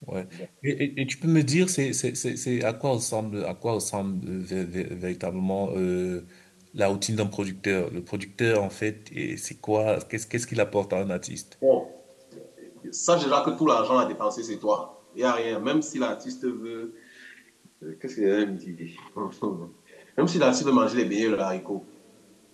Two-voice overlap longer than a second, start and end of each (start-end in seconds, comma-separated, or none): none